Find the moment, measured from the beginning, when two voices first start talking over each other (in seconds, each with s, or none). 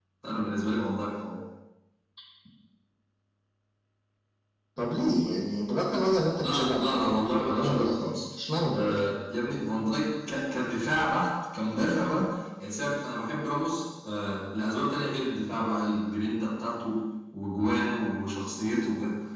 6.4 s